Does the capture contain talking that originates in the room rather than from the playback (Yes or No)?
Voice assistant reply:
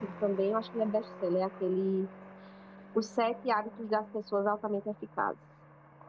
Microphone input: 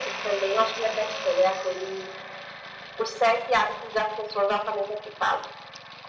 No